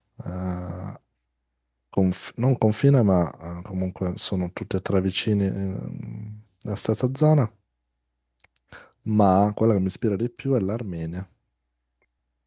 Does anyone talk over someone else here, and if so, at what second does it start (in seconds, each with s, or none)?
none